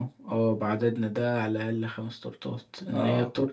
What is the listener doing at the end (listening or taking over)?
listening